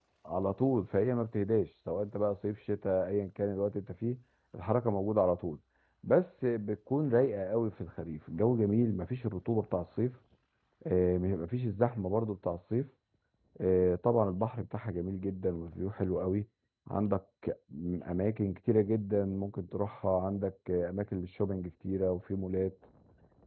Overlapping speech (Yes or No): No